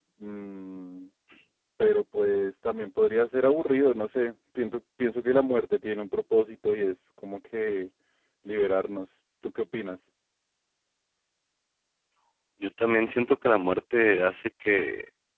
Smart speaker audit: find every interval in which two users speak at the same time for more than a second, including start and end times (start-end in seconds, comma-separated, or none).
none